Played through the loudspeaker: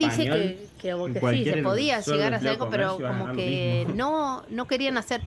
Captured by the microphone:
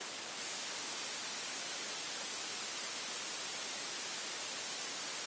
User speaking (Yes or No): No